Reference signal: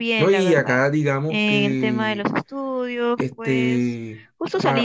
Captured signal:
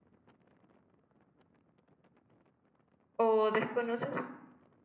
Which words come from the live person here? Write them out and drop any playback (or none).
o desconoces.